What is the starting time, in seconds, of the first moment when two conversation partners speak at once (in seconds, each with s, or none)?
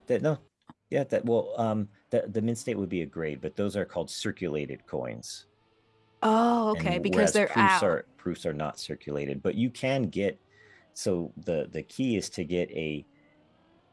6.7 s